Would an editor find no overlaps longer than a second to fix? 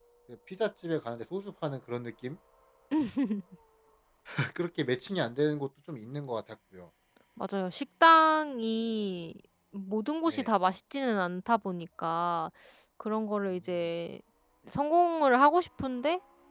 Yes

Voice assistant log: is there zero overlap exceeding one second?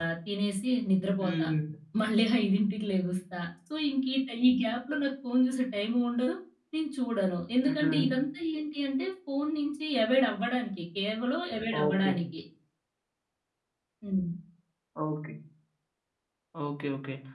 Yes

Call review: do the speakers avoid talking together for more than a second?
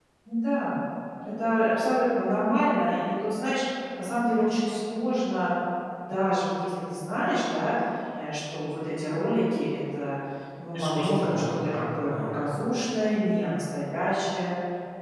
No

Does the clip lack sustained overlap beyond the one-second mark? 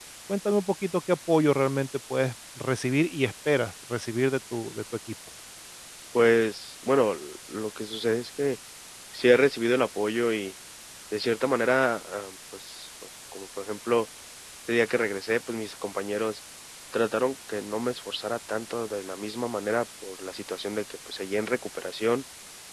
Yes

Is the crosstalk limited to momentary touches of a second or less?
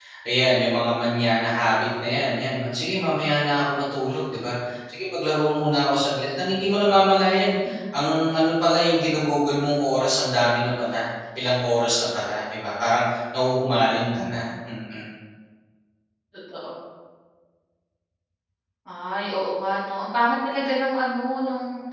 Yes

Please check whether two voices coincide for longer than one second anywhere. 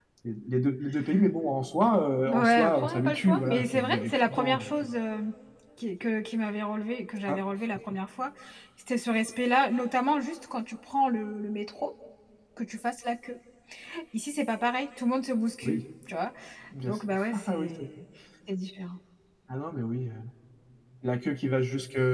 Yes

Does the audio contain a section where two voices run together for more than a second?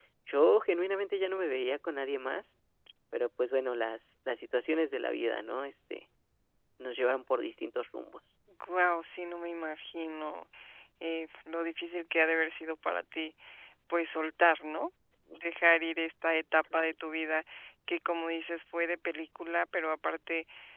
No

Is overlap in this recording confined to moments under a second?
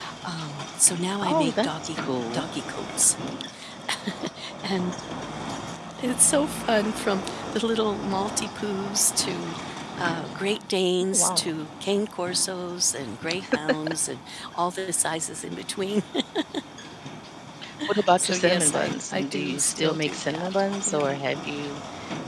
No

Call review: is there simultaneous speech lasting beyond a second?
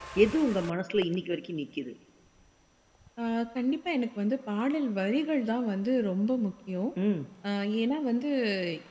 No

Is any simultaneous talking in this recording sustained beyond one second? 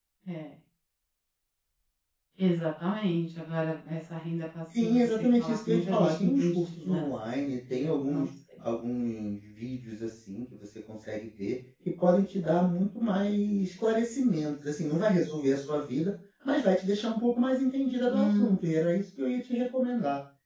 Yes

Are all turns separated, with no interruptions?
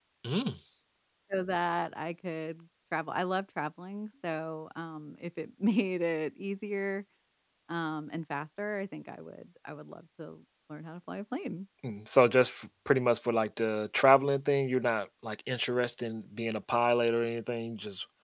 Yes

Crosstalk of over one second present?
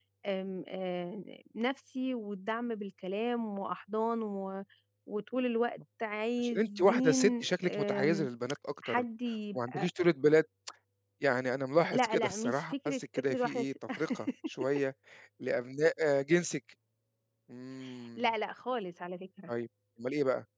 Yes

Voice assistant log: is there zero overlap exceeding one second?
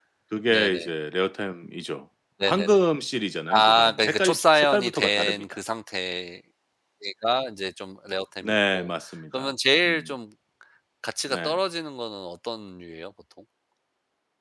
No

